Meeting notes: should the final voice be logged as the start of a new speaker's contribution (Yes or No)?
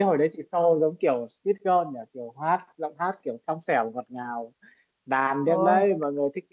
No